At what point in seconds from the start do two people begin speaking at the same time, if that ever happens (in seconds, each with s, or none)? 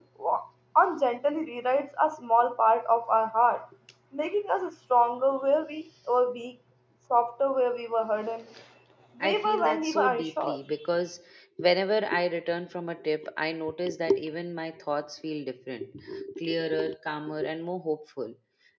9.2 s